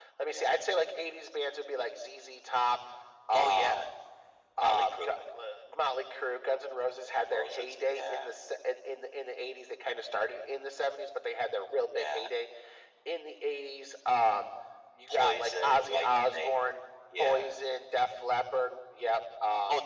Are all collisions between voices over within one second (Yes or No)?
No